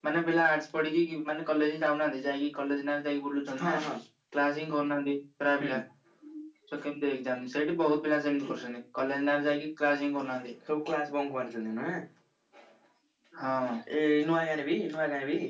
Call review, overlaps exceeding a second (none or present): none